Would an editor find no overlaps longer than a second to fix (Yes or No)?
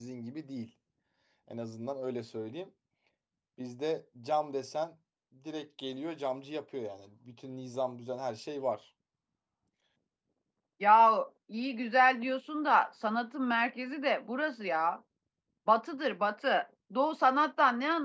Yes